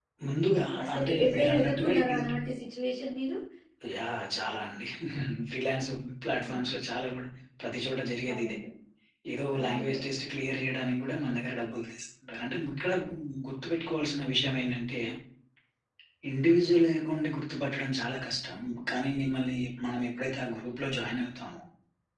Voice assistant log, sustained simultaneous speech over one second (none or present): present